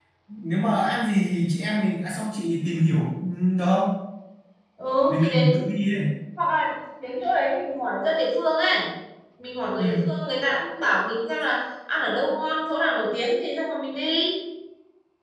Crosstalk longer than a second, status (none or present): none